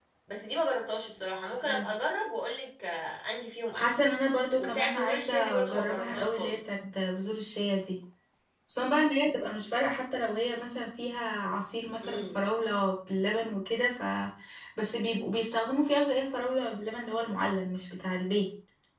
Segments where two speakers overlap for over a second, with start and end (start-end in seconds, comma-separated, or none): 4.6-6.6